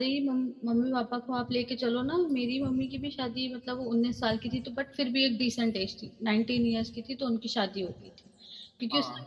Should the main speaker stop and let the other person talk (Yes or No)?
No